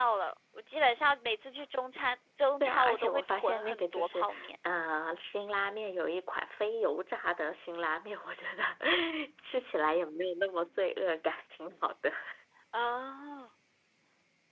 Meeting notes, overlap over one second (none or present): present